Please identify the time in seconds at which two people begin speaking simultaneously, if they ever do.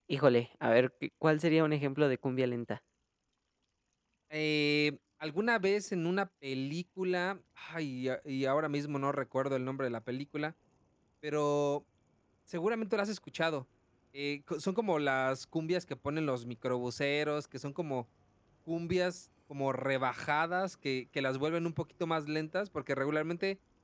none

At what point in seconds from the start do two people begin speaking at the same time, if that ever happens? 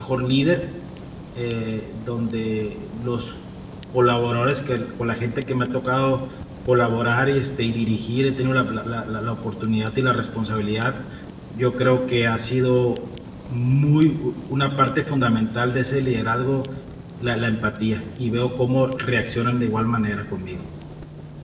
none

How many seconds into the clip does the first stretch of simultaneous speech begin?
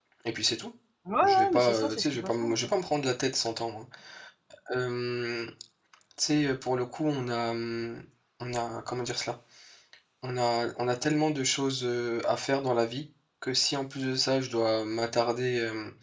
1.2 s

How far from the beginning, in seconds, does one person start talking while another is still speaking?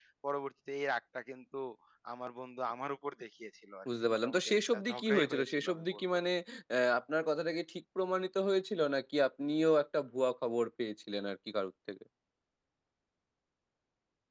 3.9 s

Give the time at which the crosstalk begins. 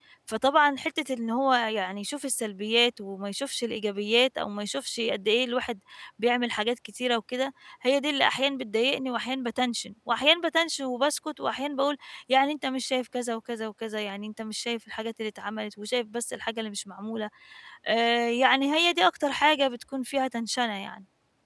none

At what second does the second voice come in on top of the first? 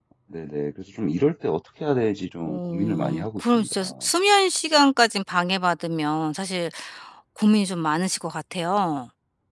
2.5 s

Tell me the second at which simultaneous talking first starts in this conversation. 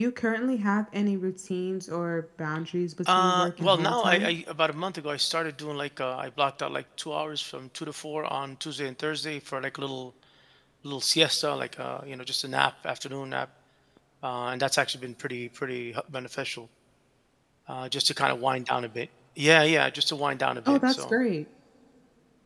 3.0 s

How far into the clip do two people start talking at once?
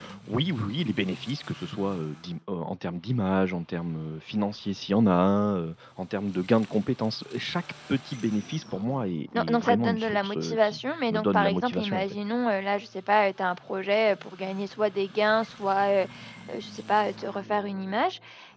9.3 s

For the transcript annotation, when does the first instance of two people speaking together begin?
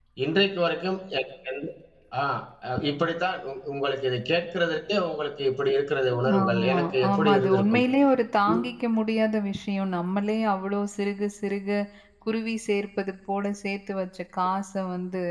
6.4 s

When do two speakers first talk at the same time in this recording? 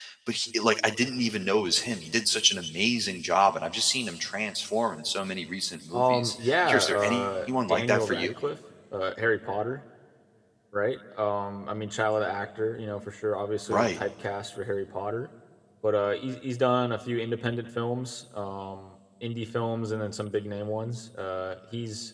5.9 s

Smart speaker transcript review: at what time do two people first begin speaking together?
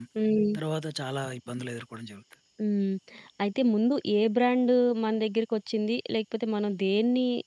none

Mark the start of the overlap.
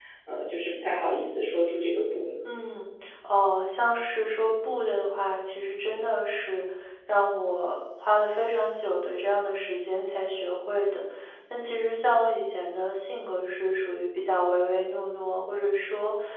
none

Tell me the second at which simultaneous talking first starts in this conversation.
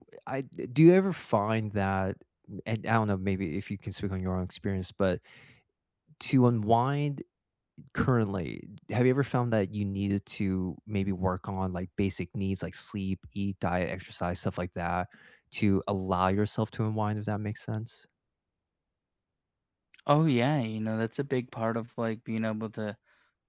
none

